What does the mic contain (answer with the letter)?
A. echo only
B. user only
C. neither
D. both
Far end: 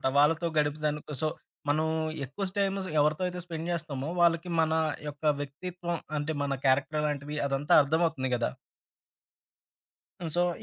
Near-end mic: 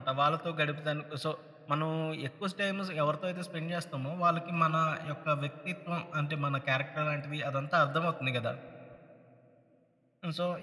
A